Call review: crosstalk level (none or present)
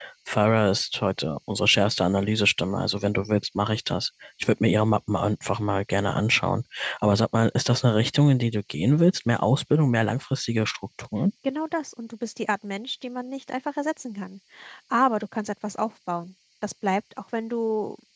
none